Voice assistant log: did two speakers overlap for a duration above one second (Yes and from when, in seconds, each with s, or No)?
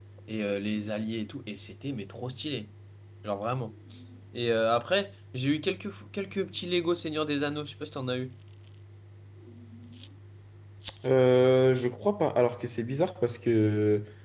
No